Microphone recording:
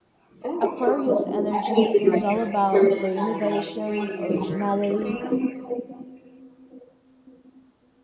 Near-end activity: present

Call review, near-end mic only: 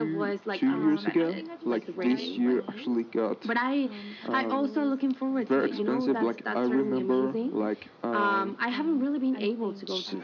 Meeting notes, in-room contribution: present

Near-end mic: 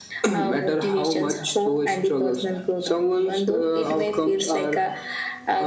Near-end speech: none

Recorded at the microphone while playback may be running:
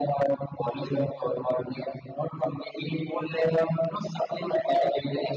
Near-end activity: none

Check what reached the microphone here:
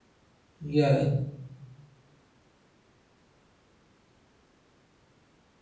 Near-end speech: present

